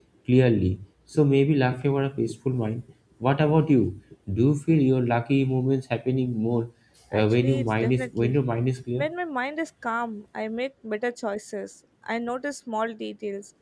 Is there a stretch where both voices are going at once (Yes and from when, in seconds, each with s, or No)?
Yes, from 7.1 s